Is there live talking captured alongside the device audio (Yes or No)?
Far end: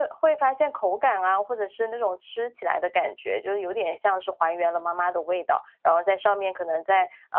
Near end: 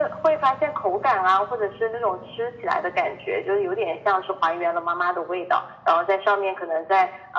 No